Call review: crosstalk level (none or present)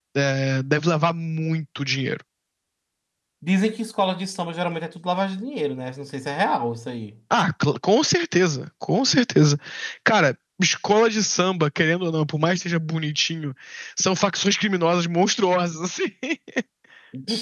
none